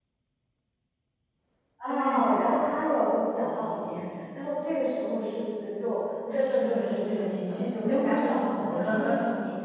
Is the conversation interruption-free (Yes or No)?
No